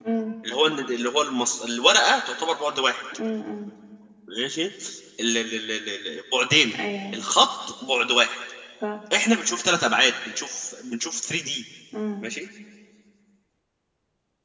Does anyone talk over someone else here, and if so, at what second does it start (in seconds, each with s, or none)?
none